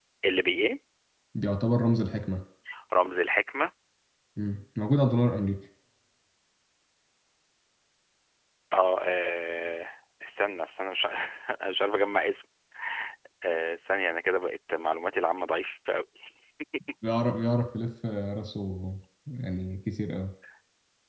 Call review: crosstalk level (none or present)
none